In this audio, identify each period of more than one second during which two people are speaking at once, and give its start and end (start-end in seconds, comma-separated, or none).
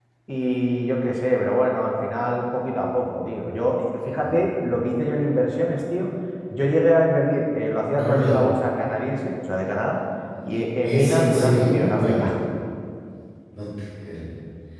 10.8-12.4